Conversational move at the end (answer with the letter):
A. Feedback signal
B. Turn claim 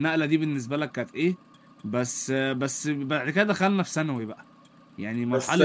B